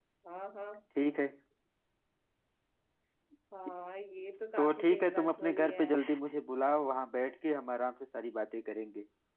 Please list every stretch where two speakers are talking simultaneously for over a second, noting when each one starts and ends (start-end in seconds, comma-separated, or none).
4.6-6.2